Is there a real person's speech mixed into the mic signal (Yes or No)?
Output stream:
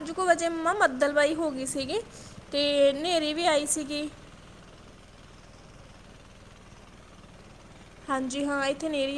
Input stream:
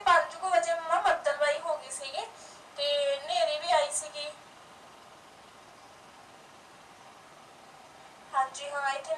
No